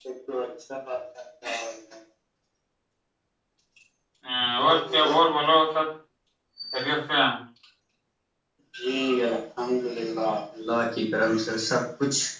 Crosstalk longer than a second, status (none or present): none